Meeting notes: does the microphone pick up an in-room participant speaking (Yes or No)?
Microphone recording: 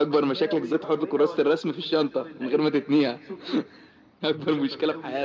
Yes